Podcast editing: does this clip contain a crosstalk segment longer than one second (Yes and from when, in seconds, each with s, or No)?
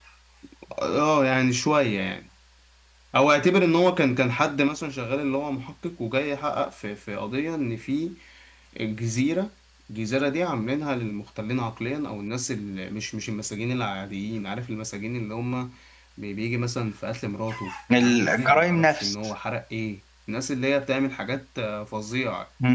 Yes, from 17.9 s